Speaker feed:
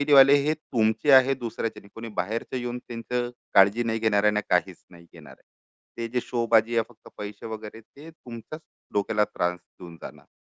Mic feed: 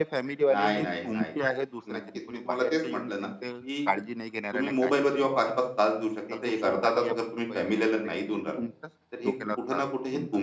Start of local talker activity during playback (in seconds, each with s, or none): 0.5 s